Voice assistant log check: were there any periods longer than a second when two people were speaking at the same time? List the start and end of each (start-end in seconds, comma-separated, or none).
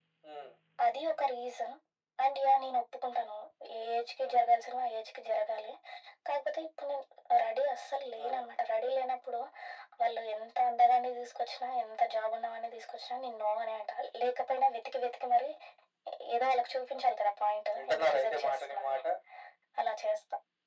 17.8-19.0